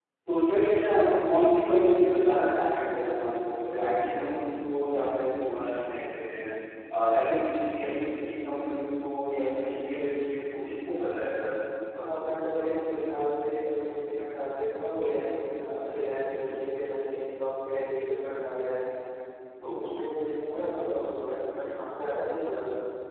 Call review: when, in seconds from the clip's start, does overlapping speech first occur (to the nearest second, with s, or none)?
none